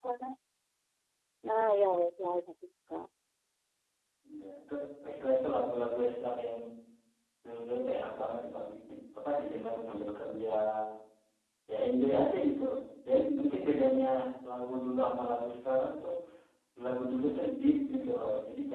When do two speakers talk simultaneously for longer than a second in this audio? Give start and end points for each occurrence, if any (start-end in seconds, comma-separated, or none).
none